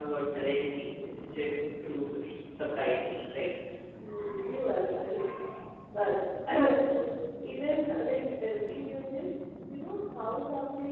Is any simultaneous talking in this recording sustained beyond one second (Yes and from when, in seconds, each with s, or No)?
No